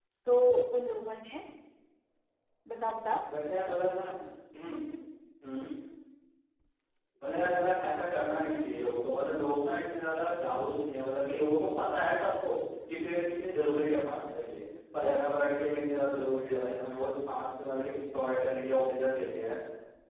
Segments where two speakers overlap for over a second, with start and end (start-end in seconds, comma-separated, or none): none